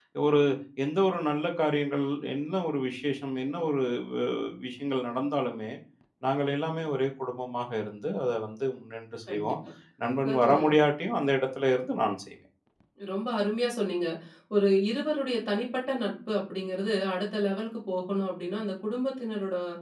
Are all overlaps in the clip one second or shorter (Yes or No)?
Yes